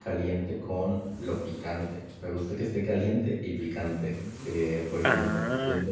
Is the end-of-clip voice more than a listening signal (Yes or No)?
No